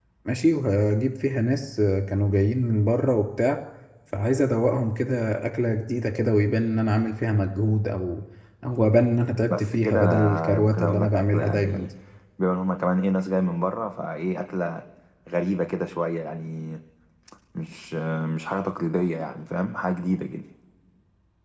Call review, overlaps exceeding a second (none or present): present